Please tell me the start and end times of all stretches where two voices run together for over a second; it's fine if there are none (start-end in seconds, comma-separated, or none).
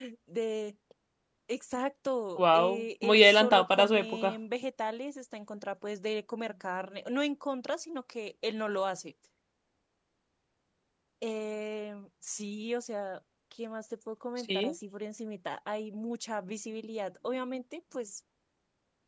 2.4-4.3